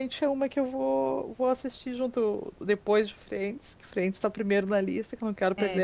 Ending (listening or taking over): taking over